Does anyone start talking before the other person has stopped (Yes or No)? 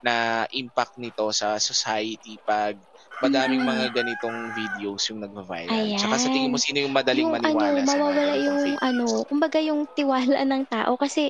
Yes